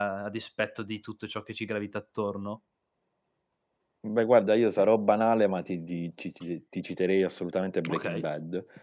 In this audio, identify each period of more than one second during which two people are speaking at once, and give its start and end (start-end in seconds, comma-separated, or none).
none